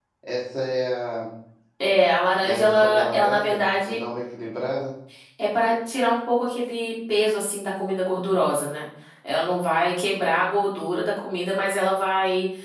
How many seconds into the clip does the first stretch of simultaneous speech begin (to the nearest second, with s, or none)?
2 s